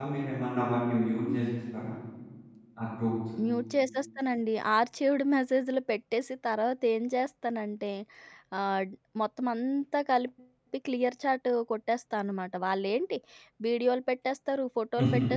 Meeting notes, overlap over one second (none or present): none